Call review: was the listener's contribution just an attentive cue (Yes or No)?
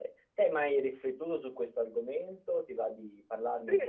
No